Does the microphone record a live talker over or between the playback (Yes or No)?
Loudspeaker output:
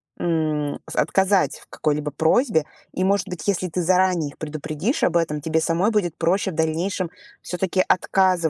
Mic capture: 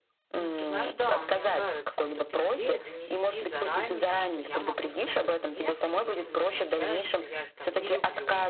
Yes